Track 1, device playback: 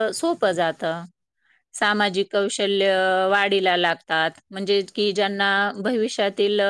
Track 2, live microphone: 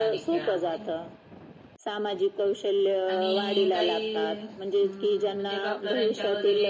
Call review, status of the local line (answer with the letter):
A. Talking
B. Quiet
A